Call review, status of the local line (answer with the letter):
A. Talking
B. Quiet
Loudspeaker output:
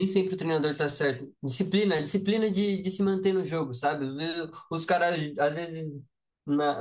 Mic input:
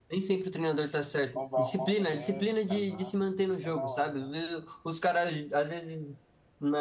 A